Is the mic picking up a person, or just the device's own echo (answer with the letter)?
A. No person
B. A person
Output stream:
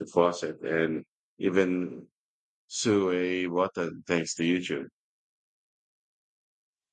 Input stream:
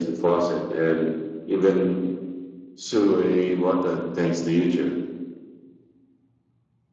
A